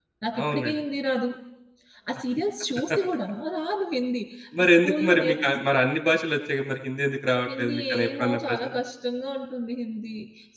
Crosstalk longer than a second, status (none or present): present